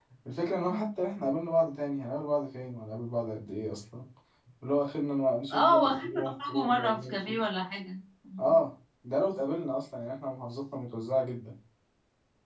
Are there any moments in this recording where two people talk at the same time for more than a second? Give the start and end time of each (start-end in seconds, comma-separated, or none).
5.5-7.4